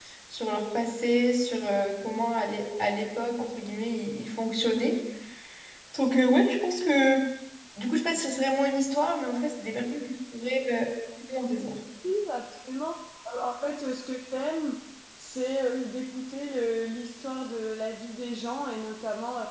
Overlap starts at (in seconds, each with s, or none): none